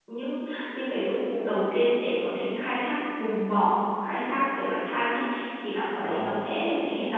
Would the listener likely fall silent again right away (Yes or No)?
Yes